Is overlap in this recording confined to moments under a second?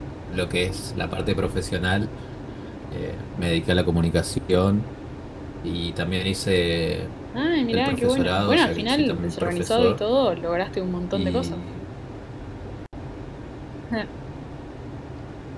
No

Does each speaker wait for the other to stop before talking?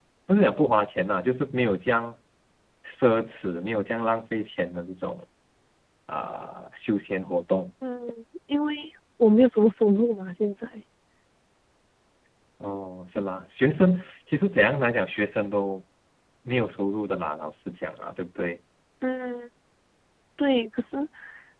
Yes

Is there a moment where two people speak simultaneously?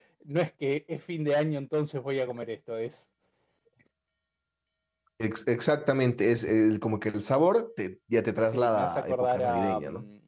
Yes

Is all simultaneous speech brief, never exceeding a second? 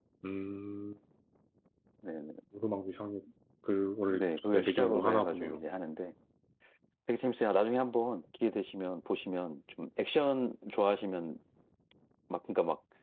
No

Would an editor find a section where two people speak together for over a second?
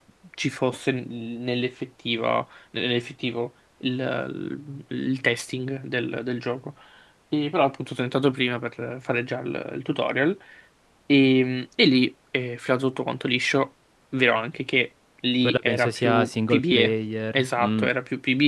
Yes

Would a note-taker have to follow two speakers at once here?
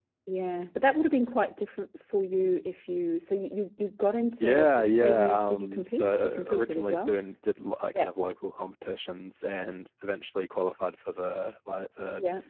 Yes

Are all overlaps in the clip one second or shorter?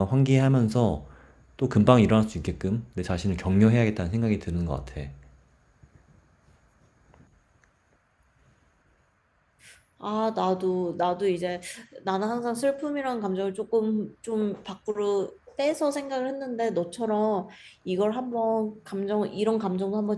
Yes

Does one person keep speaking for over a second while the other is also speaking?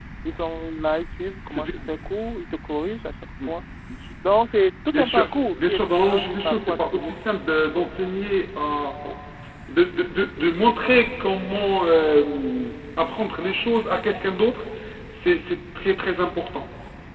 Yes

